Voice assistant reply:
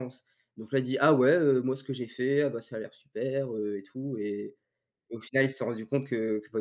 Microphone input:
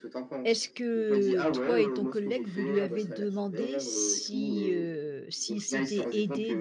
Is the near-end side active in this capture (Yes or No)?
Yes